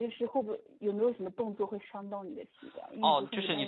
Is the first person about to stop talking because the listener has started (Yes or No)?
Yes